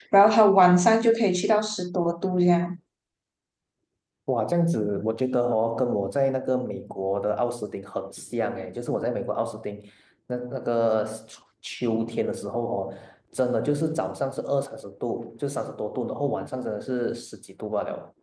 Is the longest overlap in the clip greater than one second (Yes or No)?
No